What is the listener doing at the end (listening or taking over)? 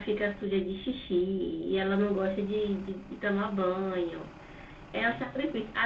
listening